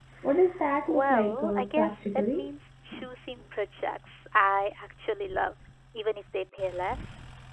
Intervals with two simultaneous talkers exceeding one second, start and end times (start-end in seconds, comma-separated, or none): 0.9-2.5